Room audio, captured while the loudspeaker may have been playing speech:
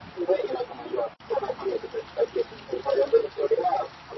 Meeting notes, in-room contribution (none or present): none